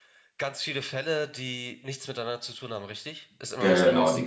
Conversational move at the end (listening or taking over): taking over